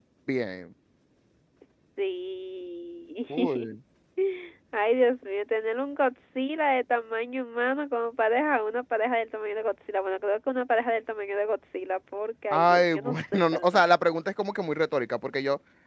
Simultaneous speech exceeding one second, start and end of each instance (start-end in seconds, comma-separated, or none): 12.5-13.8